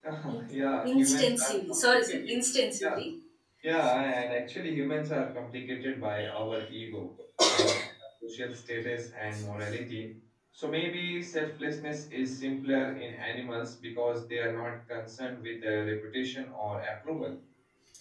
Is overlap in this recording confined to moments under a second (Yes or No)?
No